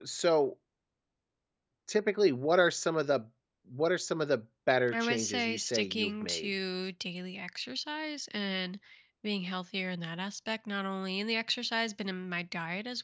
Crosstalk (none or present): present